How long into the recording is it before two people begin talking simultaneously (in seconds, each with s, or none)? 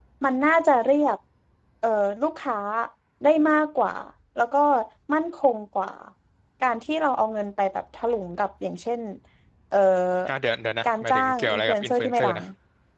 10.8 s